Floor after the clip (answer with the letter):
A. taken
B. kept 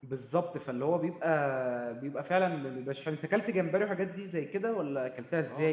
A